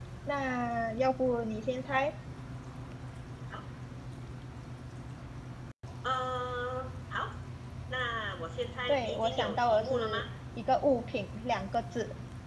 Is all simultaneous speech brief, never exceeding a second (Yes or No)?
No